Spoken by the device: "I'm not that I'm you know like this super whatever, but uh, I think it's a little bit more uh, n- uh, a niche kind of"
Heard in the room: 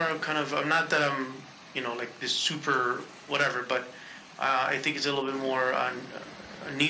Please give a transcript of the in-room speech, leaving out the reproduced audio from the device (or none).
none